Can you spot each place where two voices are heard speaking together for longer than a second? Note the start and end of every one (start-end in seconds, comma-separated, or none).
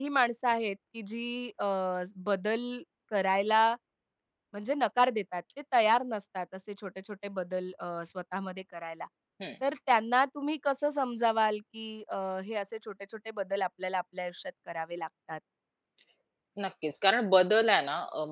none